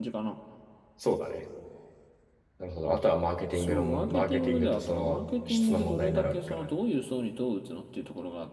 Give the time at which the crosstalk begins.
3.5 s

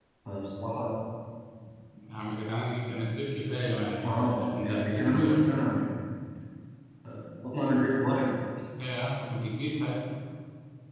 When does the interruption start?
4.0 s

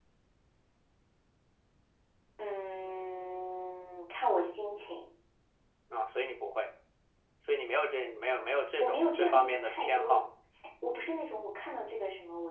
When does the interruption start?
8.8 s

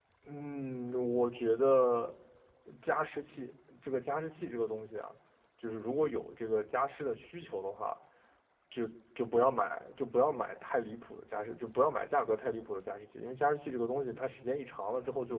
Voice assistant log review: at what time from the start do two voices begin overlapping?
none

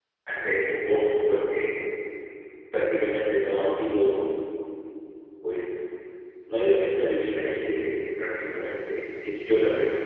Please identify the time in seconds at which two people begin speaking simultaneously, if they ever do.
none

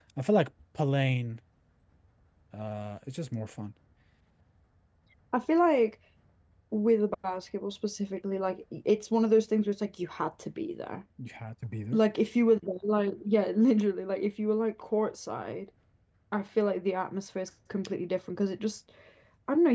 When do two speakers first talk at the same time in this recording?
none

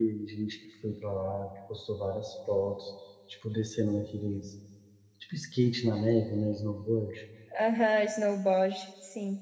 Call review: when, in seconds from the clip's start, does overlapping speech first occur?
none

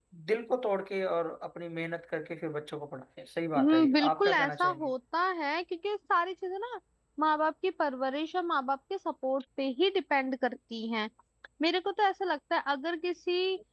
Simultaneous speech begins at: 3.5 s

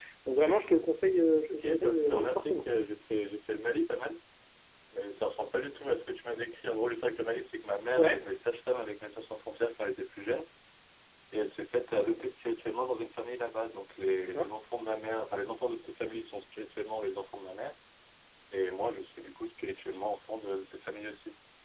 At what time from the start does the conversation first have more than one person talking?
1.5 s

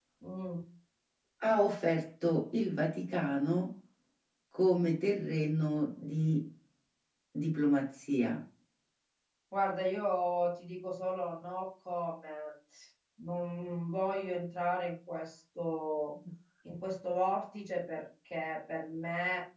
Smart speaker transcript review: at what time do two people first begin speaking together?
none

